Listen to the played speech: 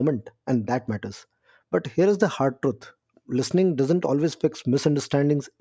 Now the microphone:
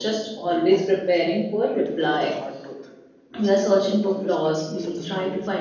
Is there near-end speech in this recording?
Yes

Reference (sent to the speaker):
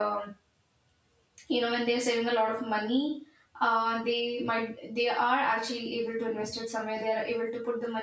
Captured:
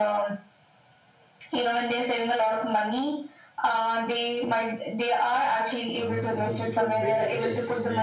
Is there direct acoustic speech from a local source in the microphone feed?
Yes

